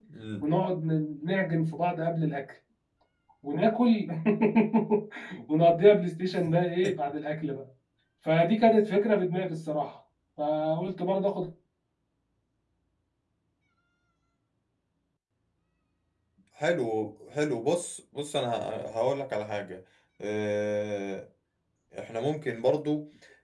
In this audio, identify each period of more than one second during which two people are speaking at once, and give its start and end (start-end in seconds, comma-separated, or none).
none